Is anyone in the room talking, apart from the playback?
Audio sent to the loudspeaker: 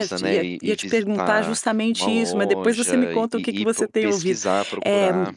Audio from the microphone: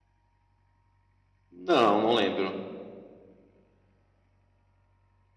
Yes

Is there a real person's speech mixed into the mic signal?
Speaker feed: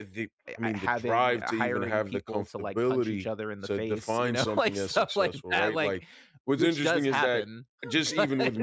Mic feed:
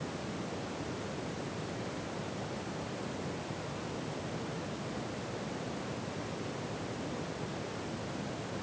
No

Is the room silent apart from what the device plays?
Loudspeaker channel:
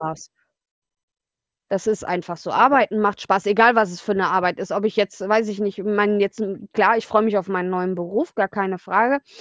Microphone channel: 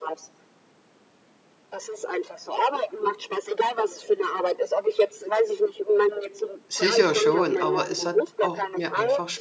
No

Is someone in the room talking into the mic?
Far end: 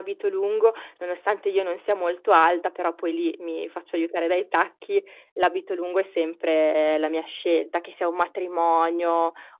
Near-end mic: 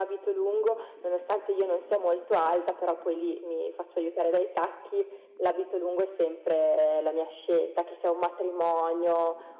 No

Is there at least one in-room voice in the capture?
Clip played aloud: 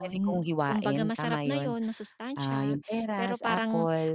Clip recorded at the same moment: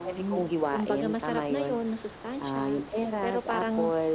No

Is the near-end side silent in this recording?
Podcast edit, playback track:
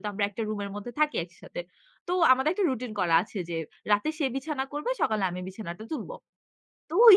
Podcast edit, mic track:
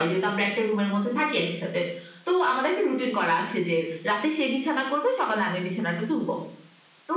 Yes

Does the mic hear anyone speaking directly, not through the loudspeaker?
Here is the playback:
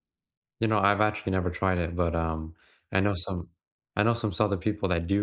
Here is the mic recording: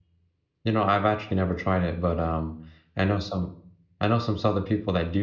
No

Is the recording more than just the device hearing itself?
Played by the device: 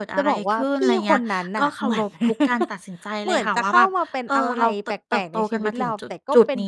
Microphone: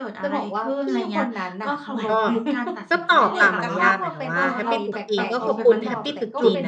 Yes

